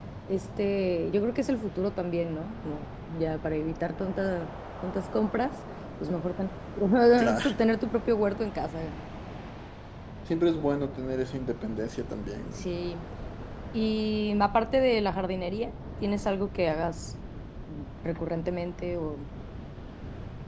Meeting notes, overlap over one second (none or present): none